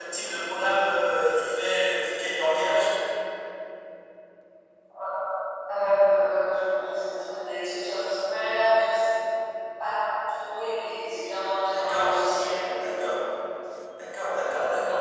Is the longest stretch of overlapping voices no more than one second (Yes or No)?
Yes